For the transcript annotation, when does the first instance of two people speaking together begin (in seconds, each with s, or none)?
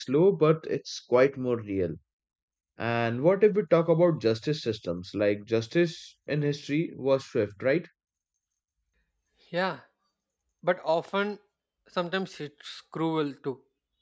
none